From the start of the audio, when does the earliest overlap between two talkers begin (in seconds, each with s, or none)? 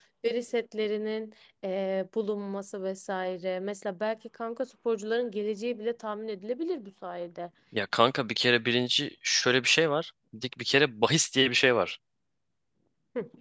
none